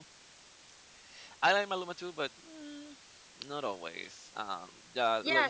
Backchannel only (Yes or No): No